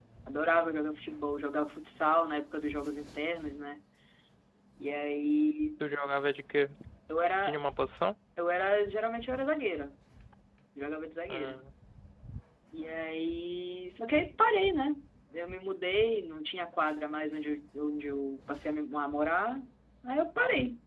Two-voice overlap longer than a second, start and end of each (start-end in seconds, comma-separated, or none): none